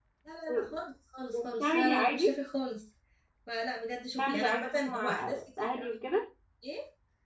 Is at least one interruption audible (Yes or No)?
Yes